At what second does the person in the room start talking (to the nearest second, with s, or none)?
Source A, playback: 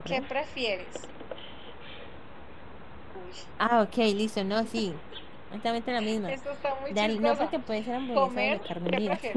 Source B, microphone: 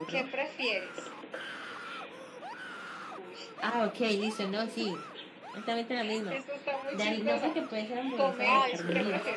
8 s